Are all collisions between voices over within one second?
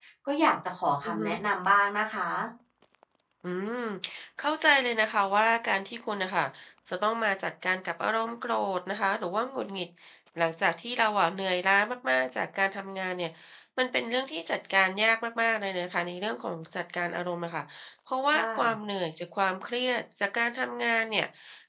Yes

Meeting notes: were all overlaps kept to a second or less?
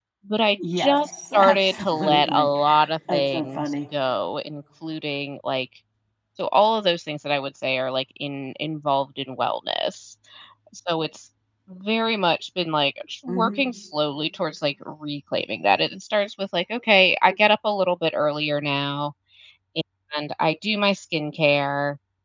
No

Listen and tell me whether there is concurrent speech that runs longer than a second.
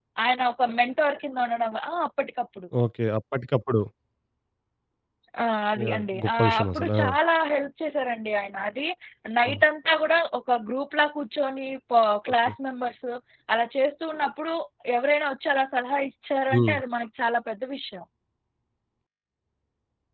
Yes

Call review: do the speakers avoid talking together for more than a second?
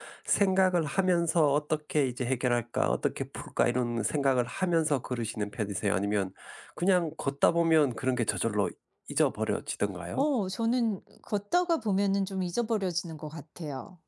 Yes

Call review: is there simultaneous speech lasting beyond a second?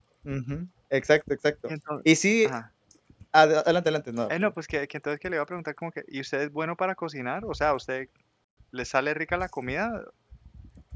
No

